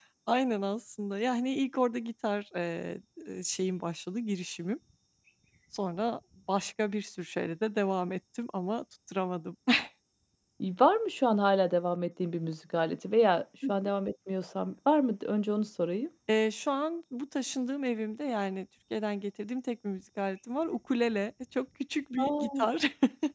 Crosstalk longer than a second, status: none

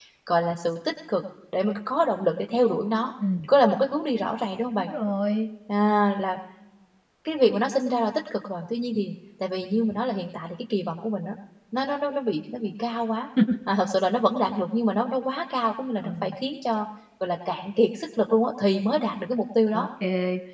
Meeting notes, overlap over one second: none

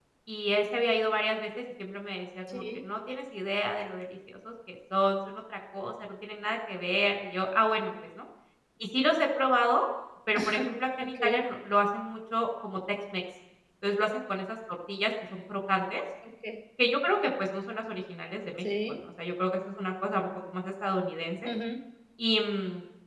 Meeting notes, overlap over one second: none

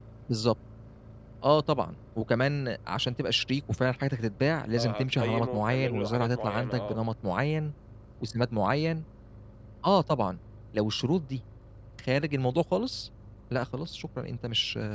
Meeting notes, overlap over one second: present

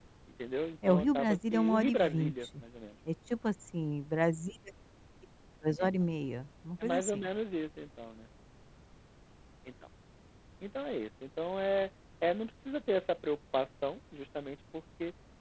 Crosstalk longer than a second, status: present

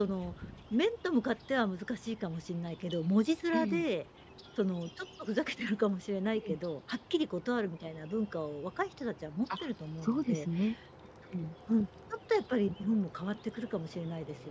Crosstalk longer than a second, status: none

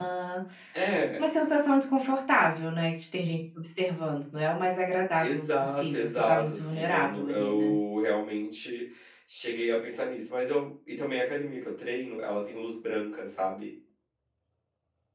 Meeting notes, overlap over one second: present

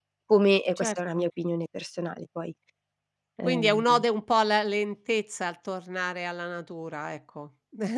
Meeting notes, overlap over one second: none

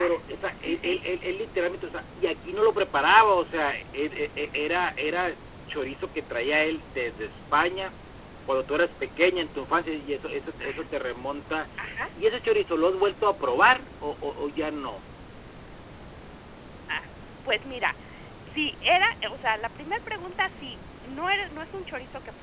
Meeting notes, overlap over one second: none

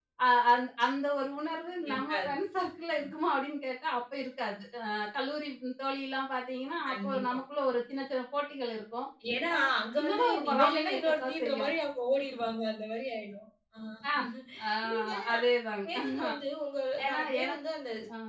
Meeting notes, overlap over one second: present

